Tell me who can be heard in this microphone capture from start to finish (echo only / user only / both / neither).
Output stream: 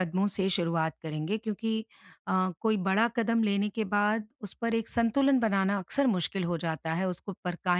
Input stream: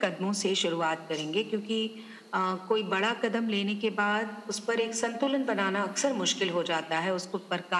echo only